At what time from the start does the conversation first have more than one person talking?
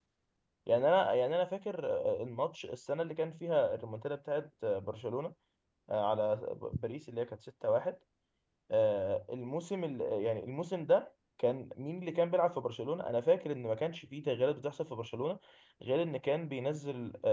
none

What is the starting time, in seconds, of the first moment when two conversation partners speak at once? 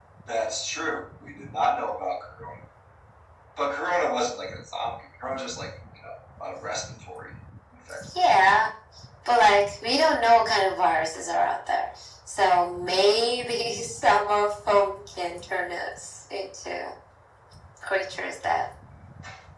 none

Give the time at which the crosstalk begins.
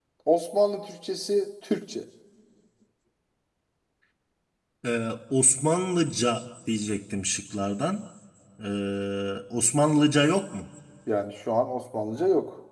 none

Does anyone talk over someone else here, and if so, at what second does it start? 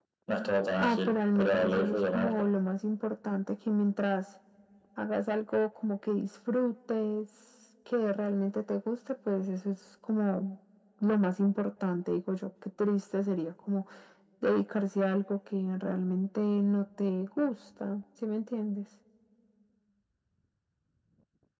1 s

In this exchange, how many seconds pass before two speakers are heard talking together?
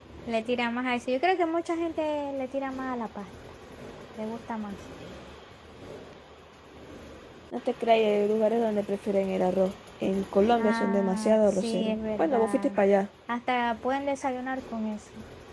11 s

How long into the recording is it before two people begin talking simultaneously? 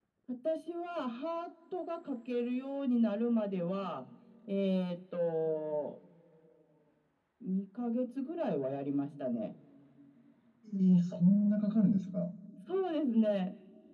none

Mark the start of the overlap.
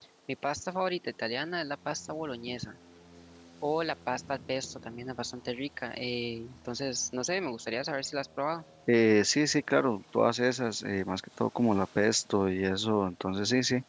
none

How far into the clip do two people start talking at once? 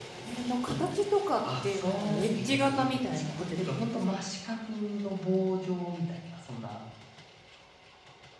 1 s

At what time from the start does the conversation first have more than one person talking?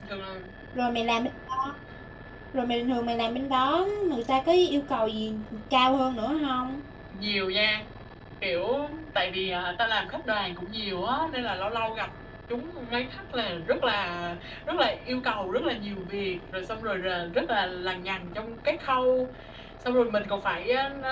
none

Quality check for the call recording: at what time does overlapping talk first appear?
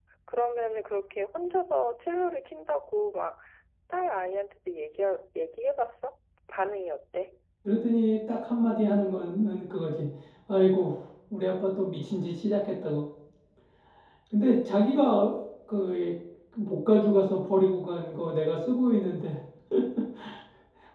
none

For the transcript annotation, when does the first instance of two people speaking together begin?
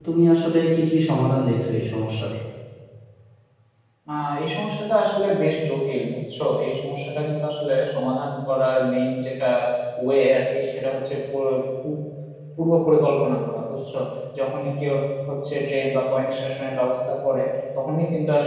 none

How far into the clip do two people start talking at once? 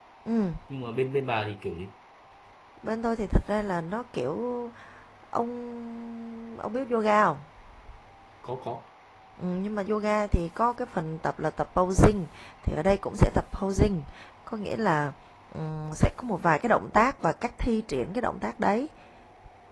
none

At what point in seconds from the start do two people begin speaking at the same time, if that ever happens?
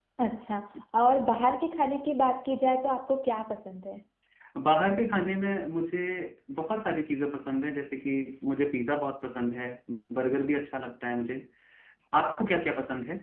none

